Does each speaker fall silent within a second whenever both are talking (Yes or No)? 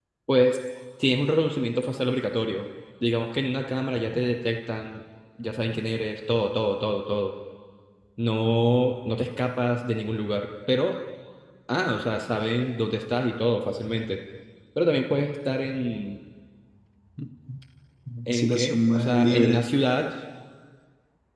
No